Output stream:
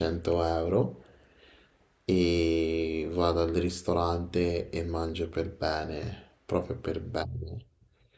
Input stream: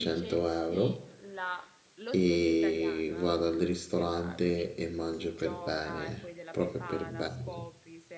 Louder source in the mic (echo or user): echo